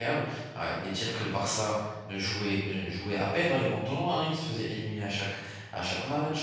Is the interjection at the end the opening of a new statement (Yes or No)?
No